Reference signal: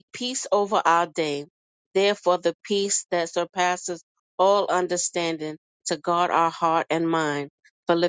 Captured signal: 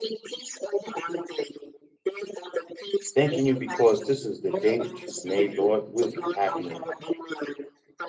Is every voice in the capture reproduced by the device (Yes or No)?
No